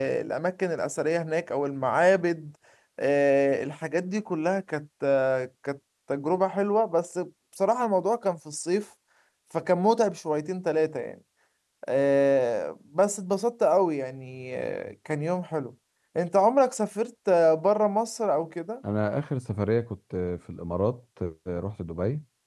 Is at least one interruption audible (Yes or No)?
No